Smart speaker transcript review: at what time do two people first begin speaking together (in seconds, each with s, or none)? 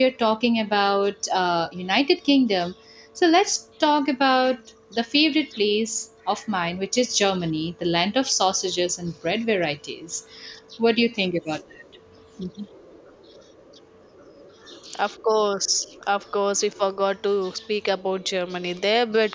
none